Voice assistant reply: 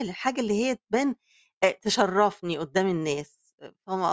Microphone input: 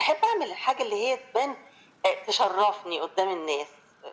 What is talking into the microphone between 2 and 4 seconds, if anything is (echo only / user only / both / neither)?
echo only